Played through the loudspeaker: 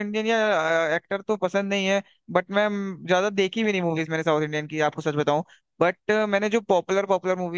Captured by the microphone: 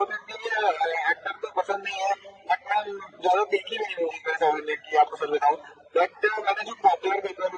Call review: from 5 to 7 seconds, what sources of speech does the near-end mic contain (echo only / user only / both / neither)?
echo only